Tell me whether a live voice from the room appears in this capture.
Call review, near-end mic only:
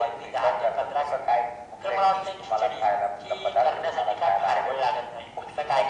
No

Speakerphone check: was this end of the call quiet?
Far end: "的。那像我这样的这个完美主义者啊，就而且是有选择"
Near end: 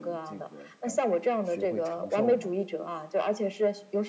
No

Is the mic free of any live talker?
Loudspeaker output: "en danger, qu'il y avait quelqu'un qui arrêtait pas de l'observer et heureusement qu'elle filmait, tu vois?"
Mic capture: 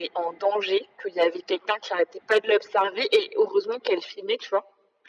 Yes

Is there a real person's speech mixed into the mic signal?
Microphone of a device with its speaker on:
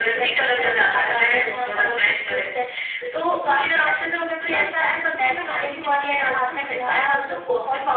No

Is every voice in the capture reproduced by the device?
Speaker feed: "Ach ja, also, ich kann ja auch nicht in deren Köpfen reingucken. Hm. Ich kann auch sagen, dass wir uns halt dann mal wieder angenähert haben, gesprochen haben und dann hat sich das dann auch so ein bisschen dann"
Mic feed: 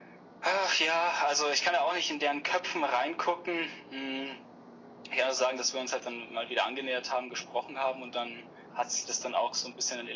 Yes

